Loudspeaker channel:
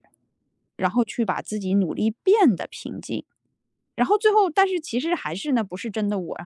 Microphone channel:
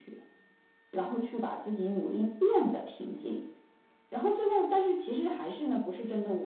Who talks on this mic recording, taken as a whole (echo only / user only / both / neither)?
echo only